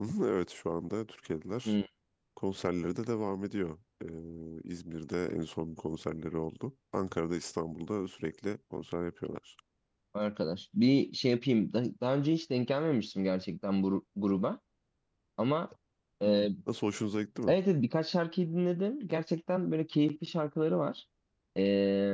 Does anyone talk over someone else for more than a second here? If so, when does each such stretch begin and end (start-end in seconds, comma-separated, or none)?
none